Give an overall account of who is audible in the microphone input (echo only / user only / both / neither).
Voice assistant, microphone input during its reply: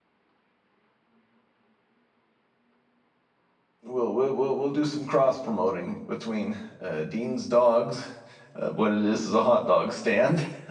user only